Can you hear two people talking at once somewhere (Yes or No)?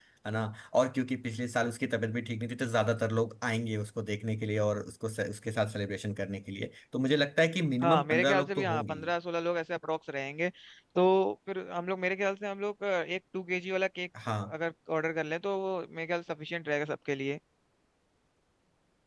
Yes